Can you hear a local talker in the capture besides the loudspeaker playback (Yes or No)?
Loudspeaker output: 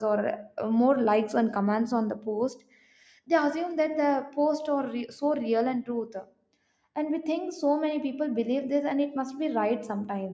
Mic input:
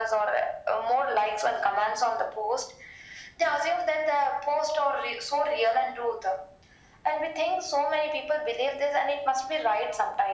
No